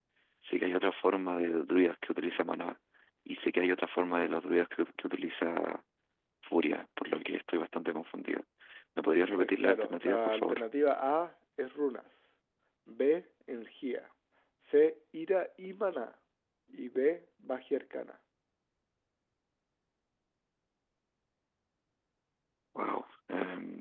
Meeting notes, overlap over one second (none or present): present